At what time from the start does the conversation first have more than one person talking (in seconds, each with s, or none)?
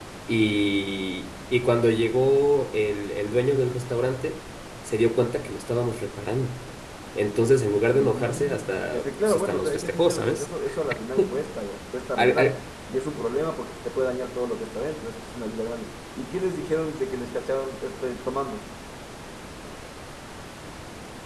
7.9 s